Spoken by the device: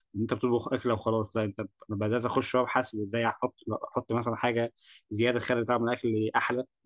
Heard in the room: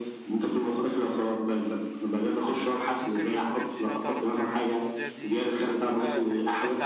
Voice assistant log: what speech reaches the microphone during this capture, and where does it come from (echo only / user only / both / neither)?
both